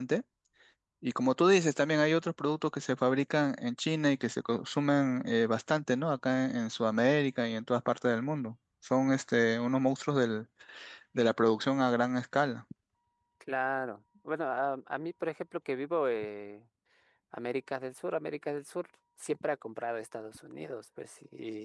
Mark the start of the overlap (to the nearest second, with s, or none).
none